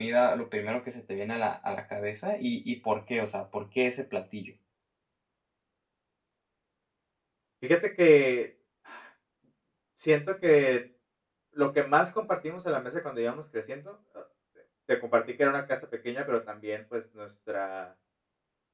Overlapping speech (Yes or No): No